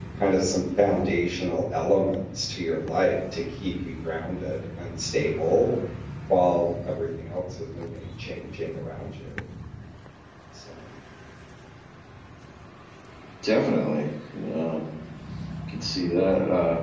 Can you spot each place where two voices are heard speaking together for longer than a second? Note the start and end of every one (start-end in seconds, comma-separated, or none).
none